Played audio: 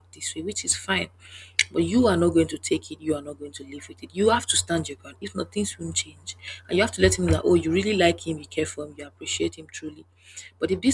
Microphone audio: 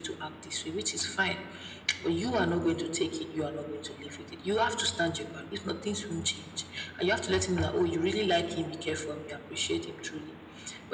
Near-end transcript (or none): none